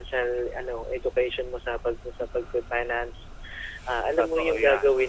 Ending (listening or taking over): listening